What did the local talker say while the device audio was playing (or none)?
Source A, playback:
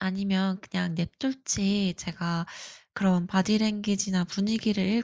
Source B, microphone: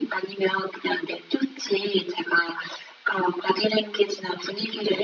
none